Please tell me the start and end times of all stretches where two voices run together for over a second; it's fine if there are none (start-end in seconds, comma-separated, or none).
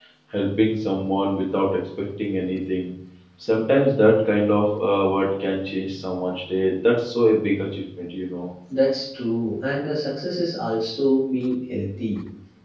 none